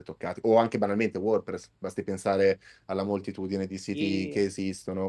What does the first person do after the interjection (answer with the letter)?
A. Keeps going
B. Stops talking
A